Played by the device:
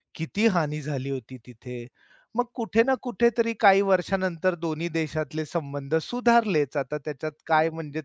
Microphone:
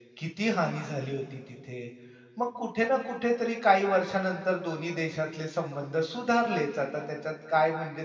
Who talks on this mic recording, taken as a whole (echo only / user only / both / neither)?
echo only